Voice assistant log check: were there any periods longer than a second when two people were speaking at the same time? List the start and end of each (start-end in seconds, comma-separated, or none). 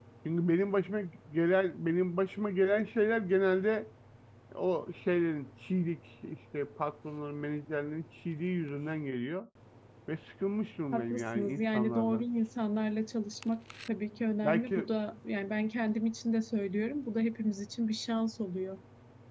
10.9-12.2